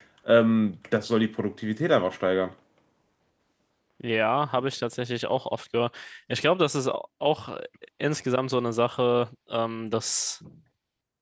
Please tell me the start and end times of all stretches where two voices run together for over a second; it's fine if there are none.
none

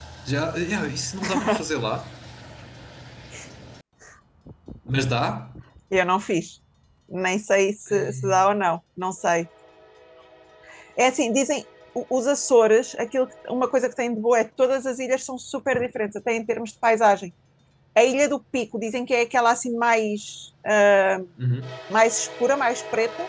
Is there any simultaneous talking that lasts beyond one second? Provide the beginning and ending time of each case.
none

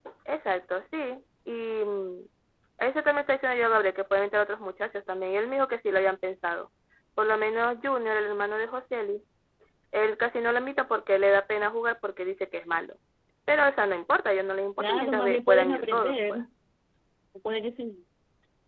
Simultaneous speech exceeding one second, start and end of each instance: 14.8-16.4

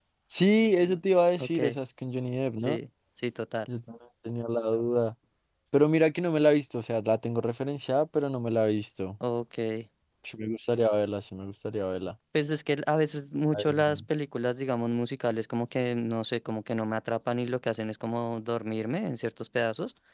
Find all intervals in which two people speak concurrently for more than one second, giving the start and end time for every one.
none

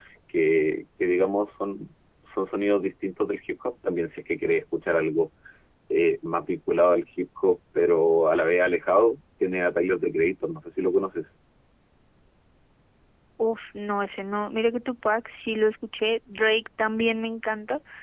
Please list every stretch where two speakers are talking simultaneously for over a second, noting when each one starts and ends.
none

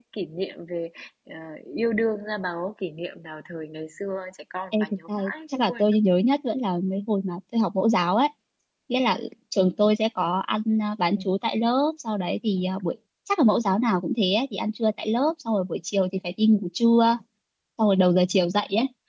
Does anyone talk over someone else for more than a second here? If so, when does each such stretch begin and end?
4.7-6.0

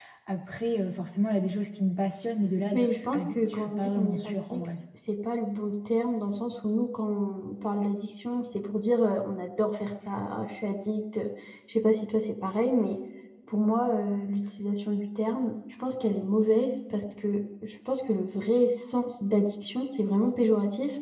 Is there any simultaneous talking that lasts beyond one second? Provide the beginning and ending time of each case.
2.7-4.7

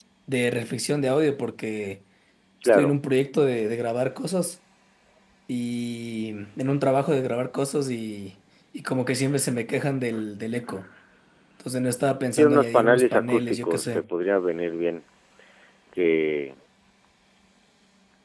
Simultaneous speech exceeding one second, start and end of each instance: 12.3-14.0

